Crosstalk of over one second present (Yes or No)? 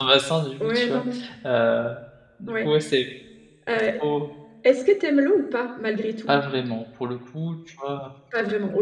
No